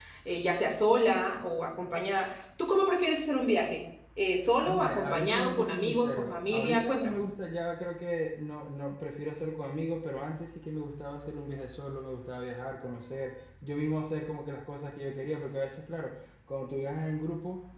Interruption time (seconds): 4.7 s

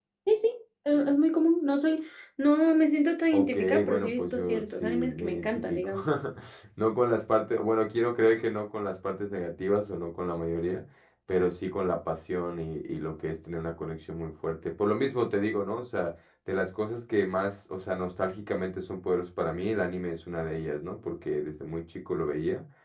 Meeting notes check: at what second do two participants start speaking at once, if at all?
3.3 s

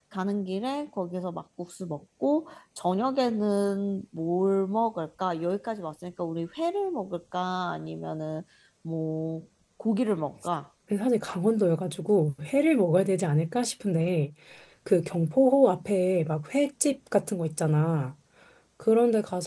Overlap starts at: none

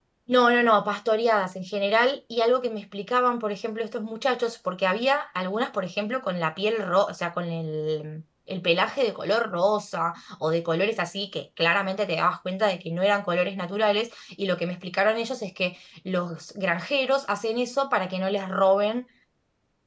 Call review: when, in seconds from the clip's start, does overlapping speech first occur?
none

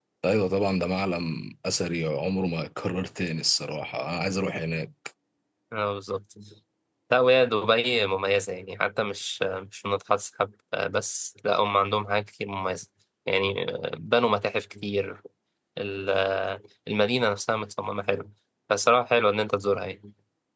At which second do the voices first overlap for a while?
none

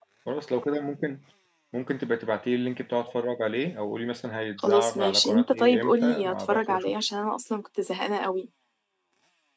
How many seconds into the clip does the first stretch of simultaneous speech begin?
4.6 s

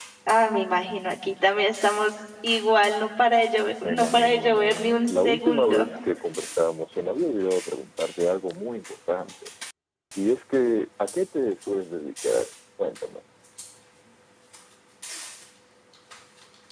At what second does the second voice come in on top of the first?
3.8 s

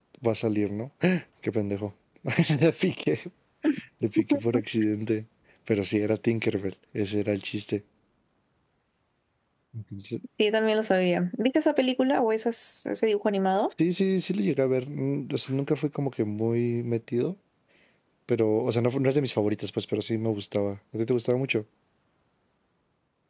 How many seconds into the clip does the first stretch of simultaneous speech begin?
none

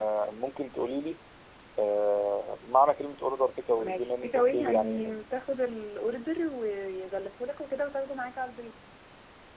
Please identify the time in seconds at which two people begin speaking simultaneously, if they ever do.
3.8 s

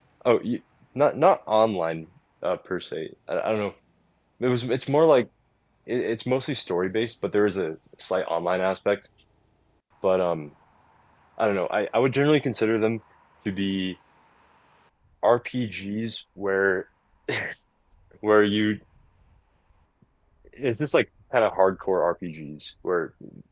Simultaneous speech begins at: none

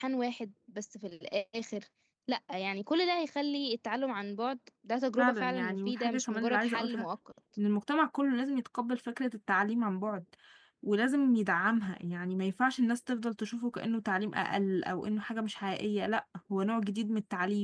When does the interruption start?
5.2 s

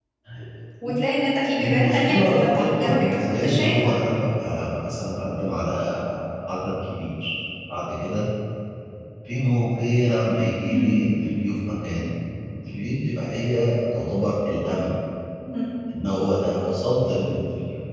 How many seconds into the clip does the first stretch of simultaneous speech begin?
1.6 s

